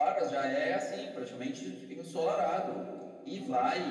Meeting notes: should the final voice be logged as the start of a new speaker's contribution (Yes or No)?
No